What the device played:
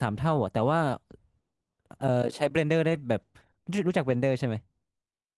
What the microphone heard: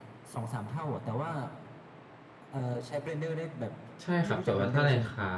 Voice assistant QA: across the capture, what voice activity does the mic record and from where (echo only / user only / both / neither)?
both